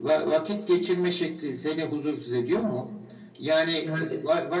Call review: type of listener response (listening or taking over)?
listening